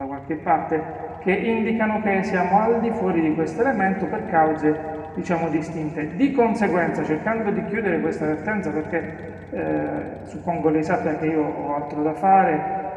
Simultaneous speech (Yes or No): No